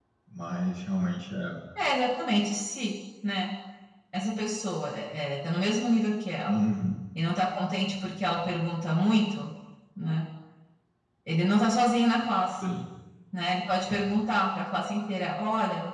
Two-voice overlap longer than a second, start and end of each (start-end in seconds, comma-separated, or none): none